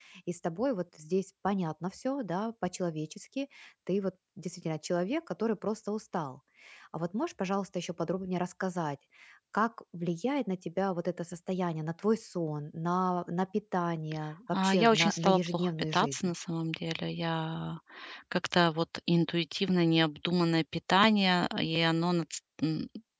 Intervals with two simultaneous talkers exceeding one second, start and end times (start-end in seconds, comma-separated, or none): 14.6-16.3